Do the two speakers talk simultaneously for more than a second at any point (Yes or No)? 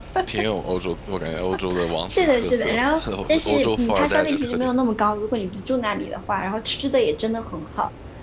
Yes